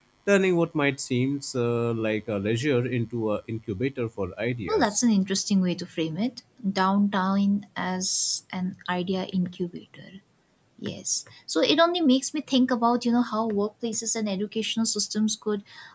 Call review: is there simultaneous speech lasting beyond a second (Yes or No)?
No